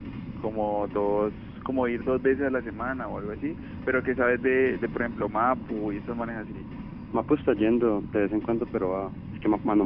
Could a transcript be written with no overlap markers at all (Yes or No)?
Yes